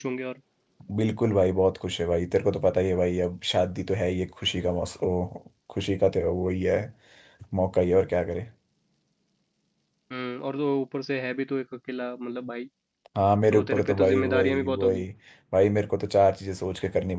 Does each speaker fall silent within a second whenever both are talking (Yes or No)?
No